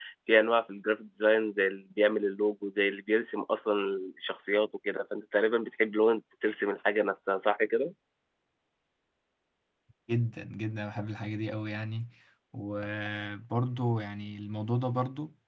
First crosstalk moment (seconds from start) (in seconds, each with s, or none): none